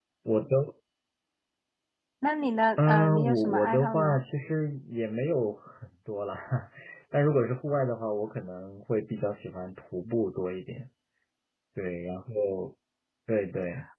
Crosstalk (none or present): present